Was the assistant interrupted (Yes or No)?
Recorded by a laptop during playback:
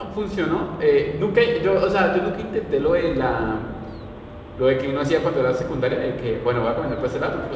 Yes